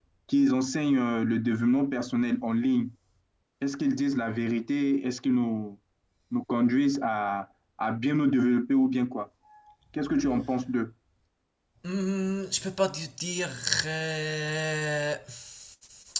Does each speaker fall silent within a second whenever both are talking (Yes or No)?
Yes